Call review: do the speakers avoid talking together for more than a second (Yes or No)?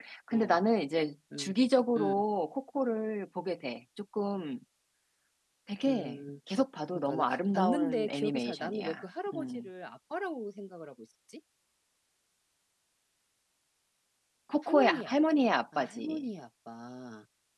No